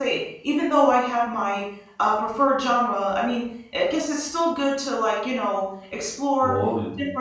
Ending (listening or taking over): listening